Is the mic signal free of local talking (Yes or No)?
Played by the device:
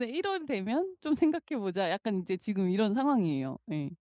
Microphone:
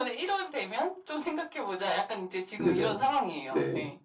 No